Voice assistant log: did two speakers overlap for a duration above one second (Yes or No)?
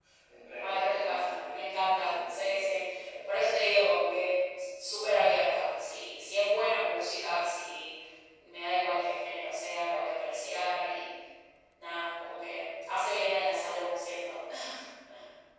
Yes